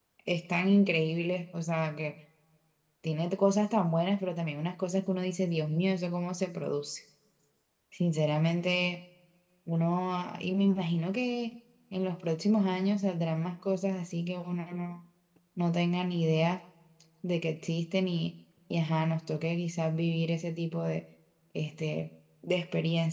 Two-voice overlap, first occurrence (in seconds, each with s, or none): none